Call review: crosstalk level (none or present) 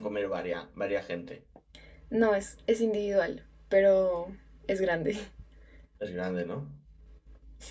none